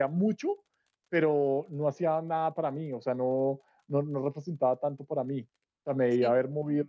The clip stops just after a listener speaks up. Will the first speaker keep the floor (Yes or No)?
Yes